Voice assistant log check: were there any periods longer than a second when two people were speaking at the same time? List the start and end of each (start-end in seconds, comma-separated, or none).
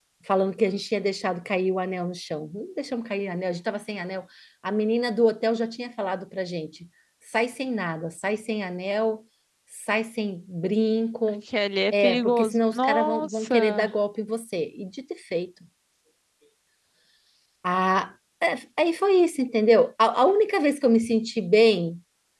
11.9-13.8